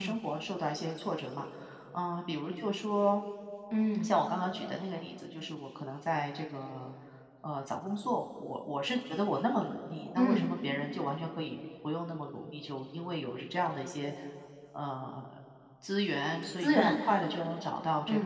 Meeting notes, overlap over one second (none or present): none